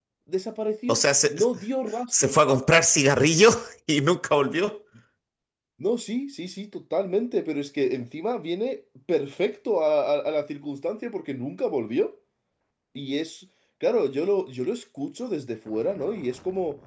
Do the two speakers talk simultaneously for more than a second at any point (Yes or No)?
No